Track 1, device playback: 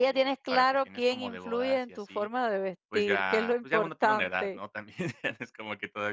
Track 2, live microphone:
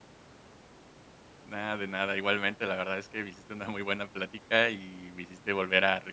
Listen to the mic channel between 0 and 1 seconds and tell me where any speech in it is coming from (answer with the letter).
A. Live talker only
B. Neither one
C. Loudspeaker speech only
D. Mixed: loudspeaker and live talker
B